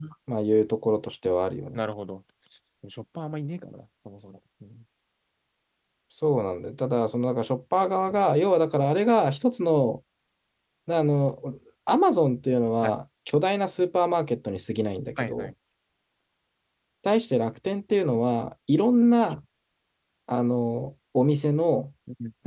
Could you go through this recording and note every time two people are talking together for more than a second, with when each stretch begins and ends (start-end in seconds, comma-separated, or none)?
none